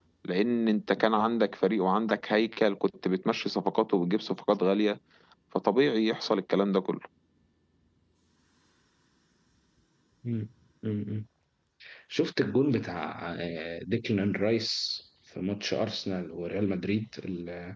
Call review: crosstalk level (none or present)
none